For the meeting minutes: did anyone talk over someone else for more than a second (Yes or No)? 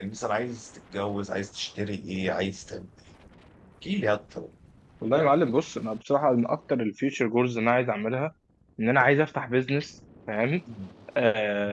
No